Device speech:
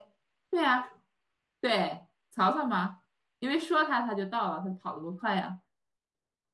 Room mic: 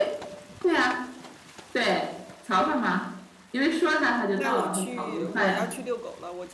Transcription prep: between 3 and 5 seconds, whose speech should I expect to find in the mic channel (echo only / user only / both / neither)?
both